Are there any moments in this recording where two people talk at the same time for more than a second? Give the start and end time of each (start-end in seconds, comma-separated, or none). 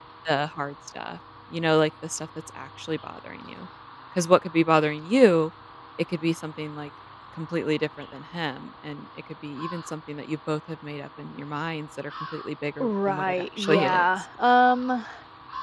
12.8-14.1